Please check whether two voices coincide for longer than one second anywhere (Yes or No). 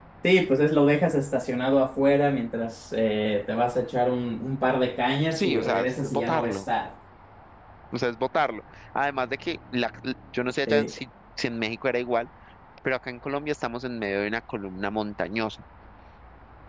Yes